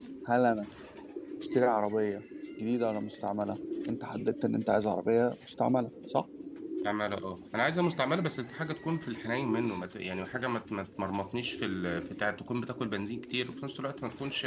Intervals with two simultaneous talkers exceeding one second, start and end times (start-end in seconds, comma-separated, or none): none